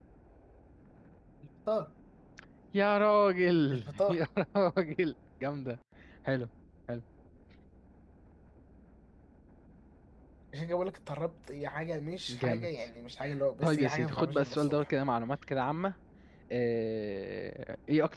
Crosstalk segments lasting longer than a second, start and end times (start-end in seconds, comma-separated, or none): 13.6-14.9